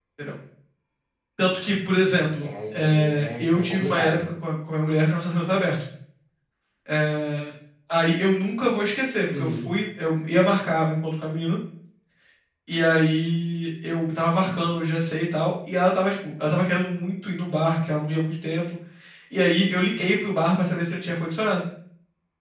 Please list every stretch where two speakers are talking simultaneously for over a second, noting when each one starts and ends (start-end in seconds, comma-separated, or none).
2.4-4.3